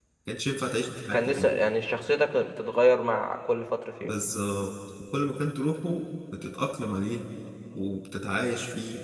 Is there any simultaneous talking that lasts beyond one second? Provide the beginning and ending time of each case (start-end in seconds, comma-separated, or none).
none